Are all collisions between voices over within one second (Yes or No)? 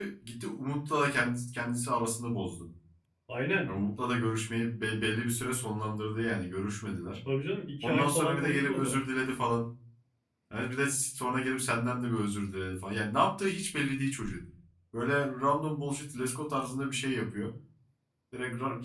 No